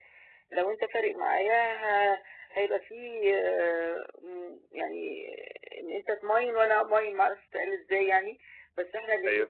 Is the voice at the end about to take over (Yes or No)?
No